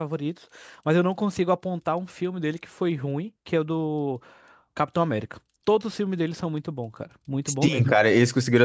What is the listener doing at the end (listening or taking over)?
taking over